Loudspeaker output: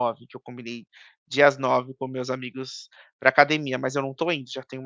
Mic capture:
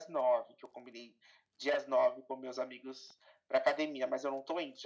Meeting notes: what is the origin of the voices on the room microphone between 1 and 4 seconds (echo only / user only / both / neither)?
echo only